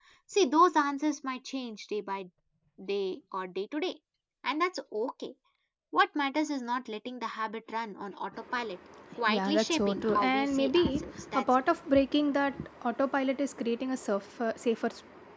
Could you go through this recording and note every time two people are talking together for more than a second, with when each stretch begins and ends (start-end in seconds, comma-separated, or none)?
9.2-11.4